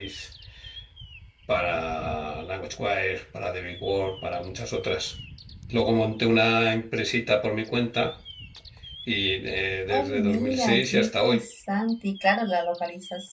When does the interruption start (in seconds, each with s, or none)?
9.9 s